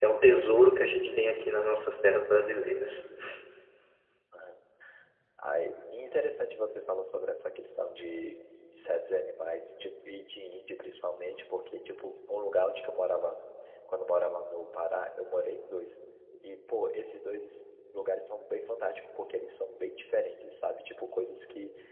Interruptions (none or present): none